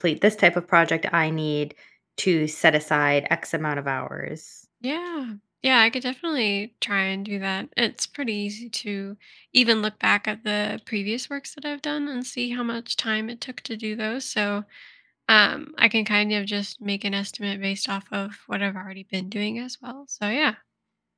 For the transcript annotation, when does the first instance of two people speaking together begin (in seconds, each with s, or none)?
none